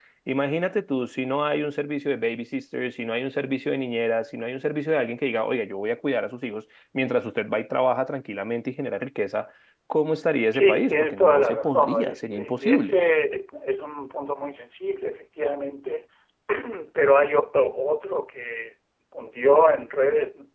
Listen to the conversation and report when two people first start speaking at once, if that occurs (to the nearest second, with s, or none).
11 s